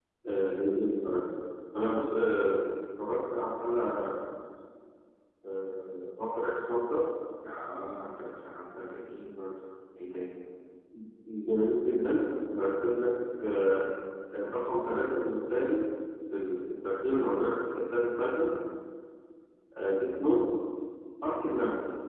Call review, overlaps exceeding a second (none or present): none